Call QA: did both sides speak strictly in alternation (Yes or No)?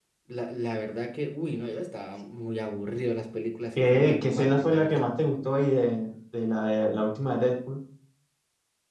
No